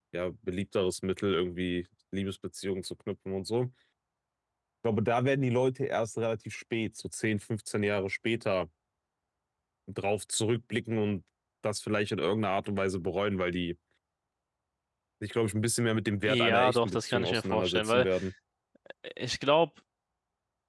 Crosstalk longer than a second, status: present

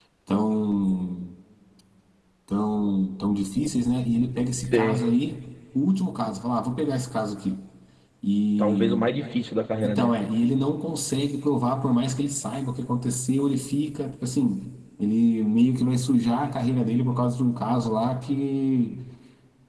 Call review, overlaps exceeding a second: none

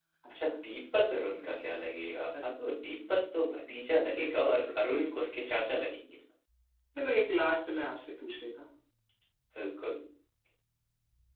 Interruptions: present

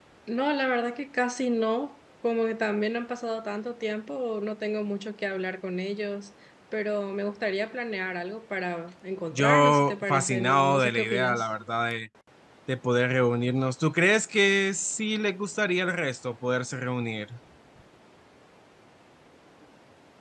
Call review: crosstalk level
present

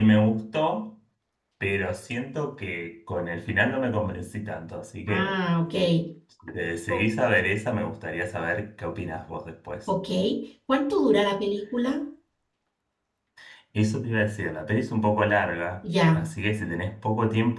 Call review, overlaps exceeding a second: none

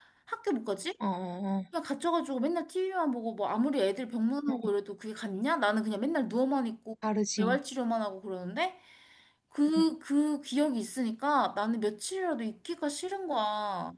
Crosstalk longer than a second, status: none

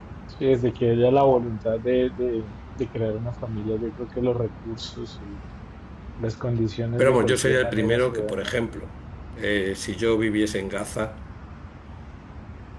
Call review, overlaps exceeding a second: present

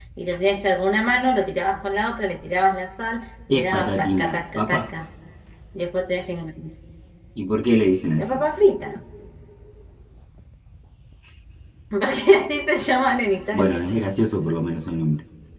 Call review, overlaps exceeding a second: present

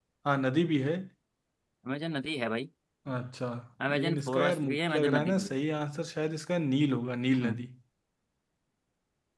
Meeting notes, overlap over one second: present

